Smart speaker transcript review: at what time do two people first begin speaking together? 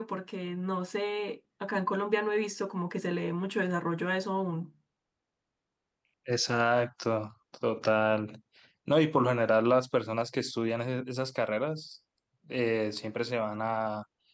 none

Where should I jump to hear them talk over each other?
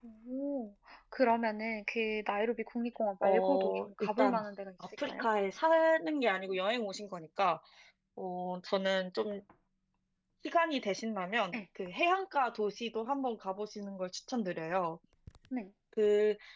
3.2 s

